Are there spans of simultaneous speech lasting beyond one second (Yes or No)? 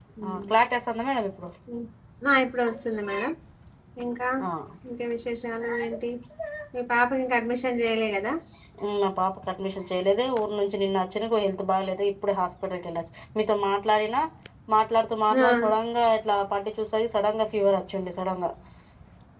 No